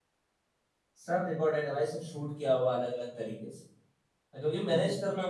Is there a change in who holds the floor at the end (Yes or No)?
No